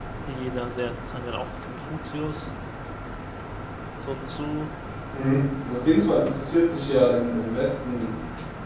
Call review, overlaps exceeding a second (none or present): none